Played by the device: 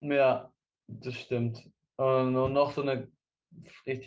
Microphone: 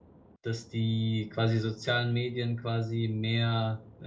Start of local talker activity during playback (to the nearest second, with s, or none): 0 s